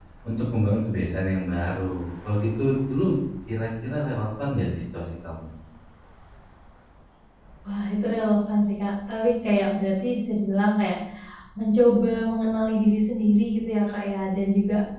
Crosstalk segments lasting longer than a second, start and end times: none

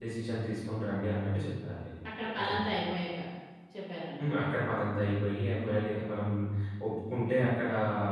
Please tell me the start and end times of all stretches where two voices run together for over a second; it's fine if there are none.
none

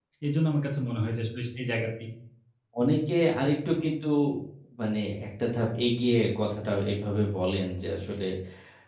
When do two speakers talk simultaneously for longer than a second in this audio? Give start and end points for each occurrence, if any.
none

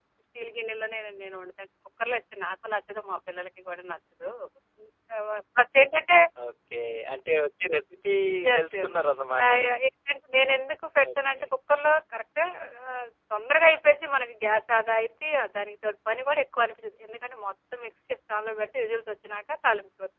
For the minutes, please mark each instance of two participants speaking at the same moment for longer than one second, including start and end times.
none

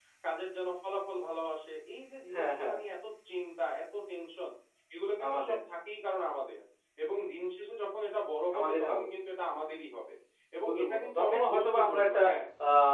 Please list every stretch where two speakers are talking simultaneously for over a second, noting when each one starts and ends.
10.6-12.2

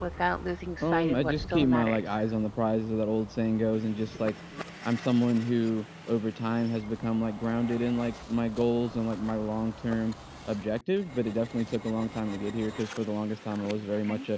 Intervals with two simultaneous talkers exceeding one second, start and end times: 0.8-2.2

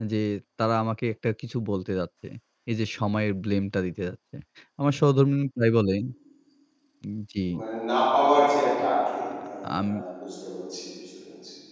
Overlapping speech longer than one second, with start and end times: none

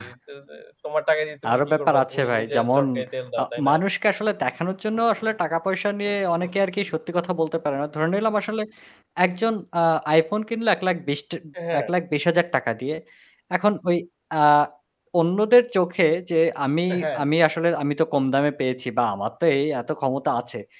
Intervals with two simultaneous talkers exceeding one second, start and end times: 1.5-2.8

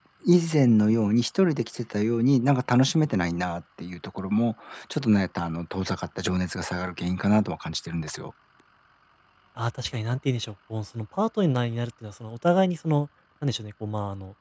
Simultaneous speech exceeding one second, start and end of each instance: none

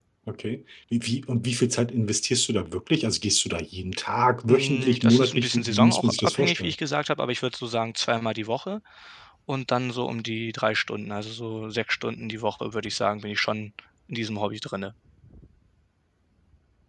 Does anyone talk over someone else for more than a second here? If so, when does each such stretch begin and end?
4.5-6.7

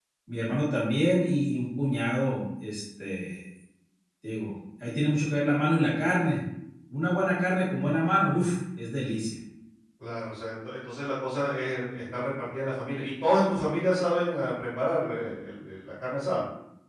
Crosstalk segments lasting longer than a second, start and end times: none

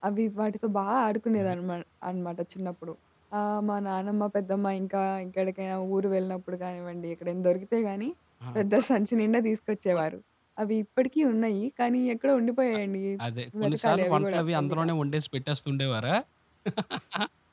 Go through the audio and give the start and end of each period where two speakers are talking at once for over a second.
13.6-14.9

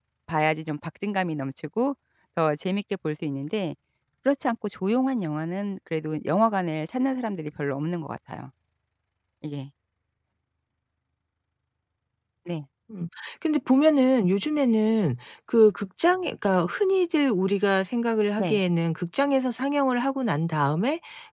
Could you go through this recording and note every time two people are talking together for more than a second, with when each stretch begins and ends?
none

